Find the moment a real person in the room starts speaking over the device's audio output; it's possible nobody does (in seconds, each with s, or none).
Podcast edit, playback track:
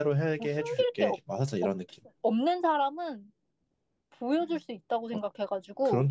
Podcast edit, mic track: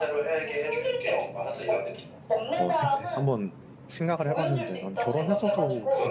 2.5 s